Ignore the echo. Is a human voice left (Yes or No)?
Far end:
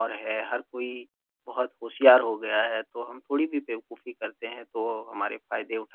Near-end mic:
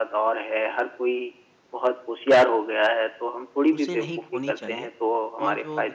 Yes